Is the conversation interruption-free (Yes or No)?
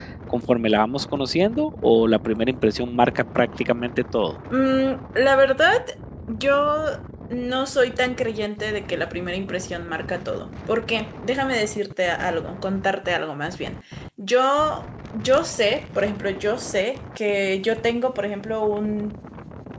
Yes